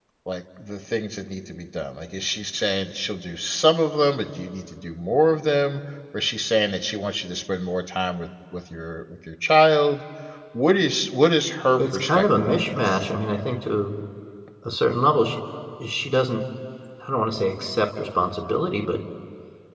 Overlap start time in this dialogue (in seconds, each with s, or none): 11.8 s